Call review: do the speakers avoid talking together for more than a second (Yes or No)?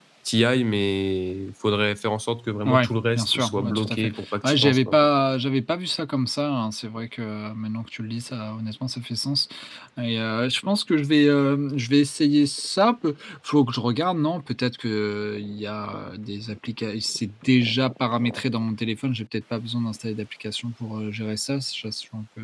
No